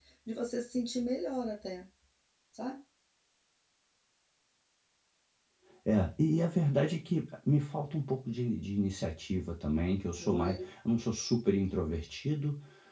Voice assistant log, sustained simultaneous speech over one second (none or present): none